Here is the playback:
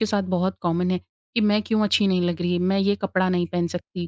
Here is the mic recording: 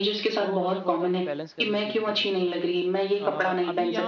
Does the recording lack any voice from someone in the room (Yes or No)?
No